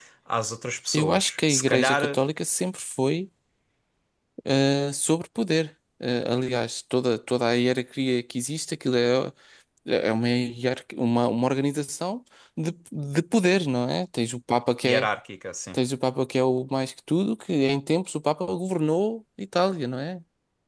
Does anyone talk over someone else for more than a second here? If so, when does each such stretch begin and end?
0.9-2.2

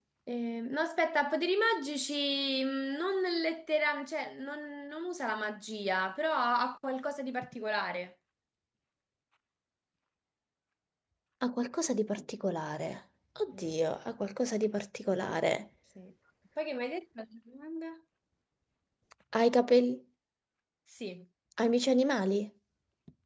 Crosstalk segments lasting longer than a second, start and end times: none

